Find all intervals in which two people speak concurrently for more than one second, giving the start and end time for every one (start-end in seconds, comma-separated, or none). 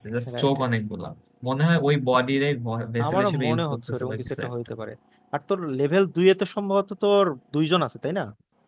3.1-4.5